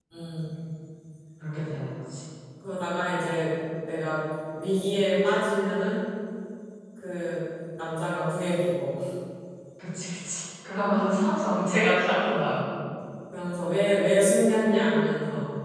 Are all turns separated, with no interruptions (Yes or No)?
Yes